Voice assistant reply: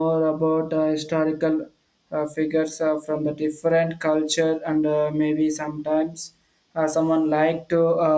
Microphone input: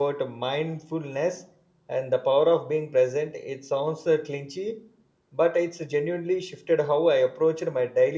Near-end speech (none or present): present